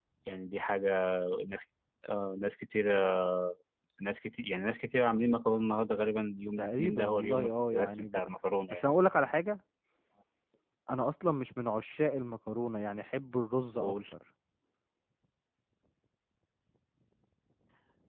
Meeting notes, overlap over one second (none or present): present